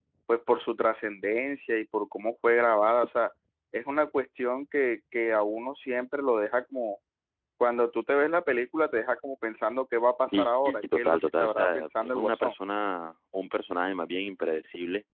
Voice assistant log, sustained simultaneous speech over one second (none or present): present